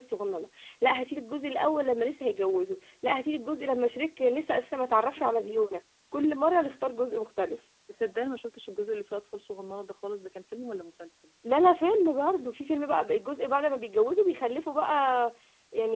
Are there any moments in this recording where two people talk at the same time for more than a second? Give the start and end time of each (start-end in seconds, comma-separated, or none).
none